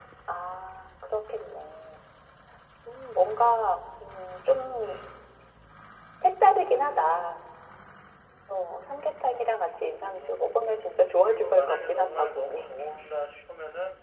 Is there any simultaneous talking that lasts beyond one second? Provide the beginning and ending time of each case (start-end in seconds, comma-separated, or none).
11.2-12.7